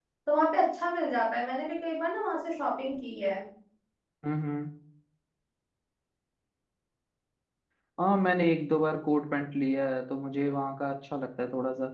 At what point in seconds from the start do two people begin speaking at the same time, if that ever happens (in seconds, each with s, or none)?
none